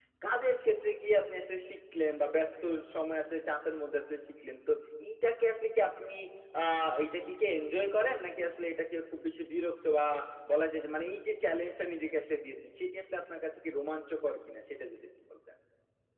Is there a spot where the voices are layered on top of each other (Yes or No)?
No